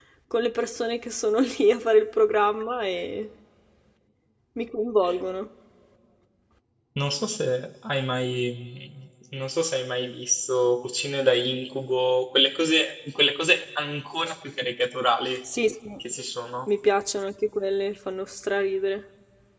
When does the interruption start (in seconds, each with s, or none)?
none